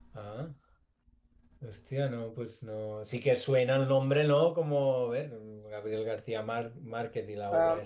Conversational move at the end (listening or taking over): taking over